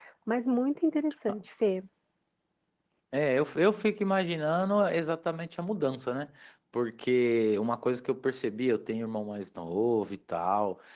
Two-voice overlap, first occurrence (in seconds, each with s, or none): none